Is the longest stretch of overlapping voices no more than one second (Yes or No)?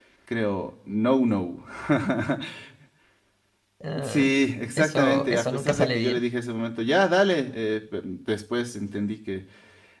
No